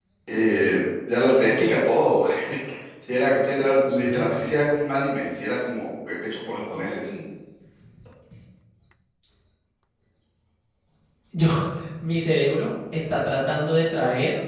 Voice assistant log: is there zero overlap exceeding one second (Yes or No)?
Yes